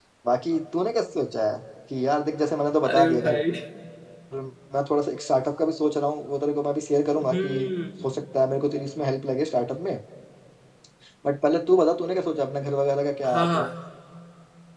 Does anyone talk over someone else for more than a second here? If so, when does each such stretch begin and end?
none

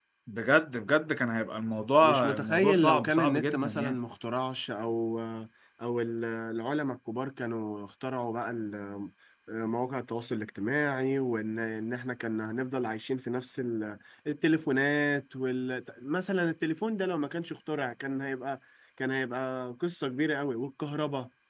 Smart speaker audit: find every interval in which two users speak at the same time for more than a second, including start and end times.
2.0-4.0

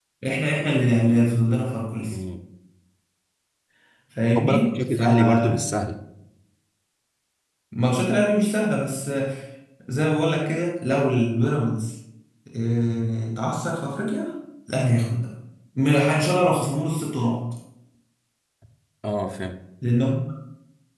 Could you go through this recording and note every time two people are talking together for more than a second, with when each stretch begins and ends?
4.3-5.6

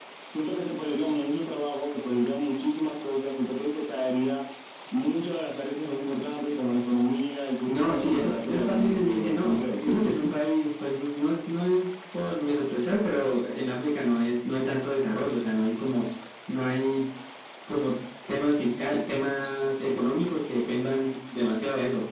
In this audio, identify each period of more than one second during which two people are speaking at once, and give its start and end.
7.7-10.1

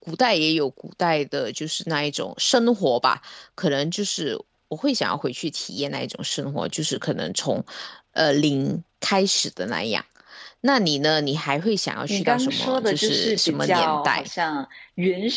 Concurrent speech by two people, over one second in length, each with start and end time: 12.1-14.2

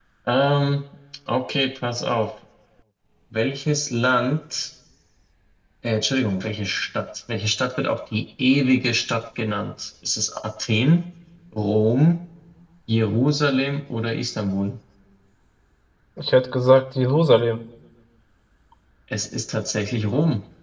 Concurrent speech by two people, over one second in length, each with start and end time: none

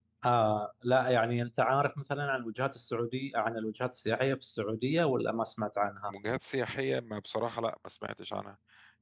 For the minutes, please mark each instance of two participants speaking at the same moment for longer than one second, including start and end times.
none

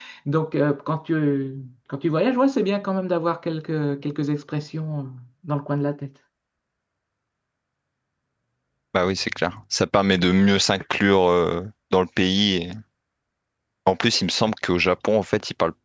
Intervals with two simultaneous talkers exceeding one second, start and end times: none

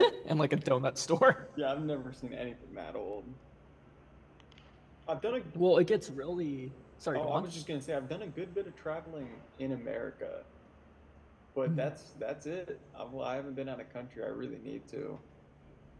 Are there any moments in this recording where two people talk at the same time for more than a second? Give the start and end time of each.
none

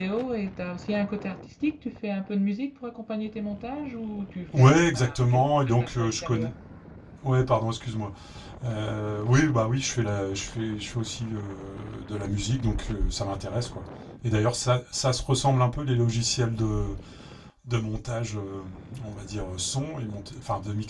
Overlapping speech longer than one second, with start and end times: 4.6-6.5

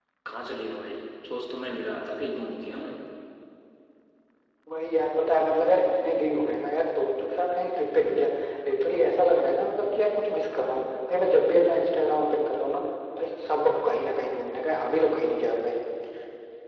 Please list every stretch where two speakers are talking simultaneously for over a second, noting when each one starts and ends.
none

